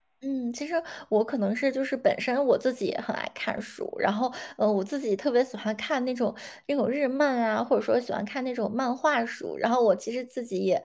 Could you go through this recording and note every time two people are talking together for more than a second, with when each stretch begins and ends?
none

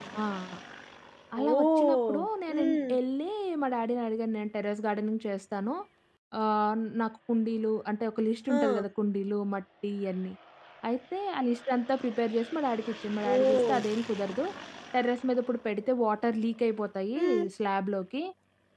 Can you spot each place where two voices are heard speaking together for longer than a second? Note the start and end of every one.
1.5-2.9

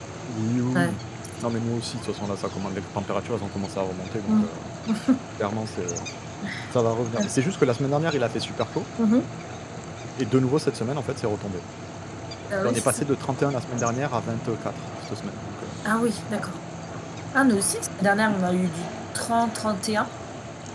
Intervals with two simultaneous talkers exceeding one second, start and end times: none

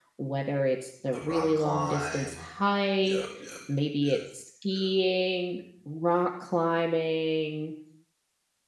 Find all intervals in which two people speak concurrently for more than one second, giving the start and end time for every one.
1.1-2.4

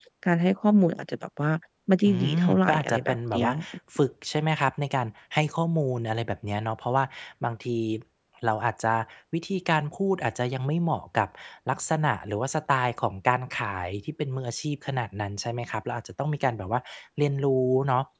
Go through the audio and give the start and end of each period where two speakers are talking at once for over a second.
2.1-3.5

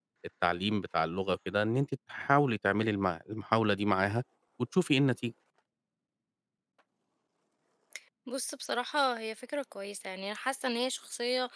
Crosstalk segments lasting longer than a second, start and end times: none

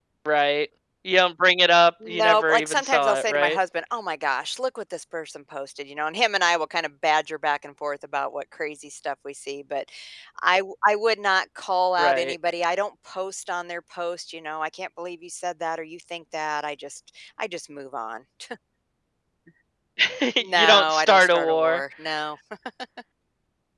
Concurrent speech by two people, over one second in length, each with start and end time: 2.1-3.6, 20.6-21.8

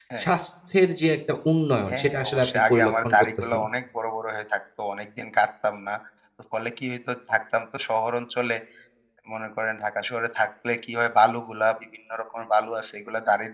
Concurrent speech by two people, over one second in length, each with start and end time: 1.9-3.6

